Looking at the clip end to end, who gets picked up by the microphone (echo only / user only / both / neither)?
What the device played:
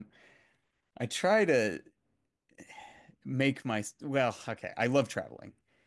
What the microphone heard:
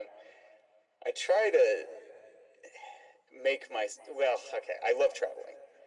echo only